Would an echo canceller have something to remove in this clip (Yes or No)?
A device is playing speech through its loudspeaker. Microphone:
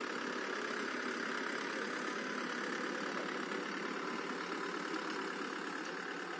No